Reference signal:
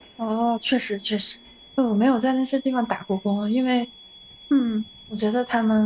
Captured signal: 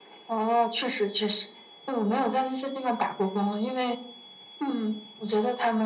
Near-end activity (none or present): none